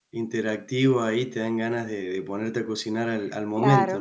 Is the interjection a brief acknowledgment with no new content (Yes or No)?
No